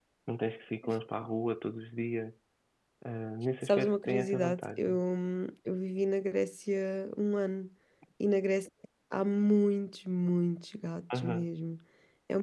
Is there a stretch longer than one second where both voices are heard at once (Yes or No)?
Yes